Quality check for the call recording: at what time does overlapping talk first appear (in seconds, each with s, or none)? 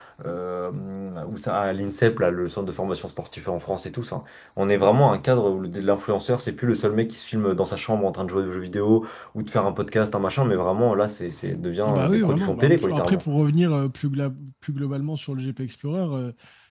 11.8 s